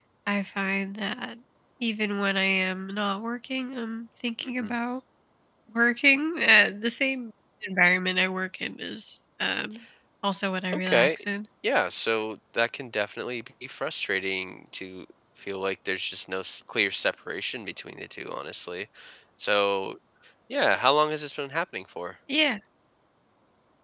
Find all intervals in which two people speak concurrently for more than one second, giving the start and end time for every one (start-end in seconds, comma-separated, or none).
none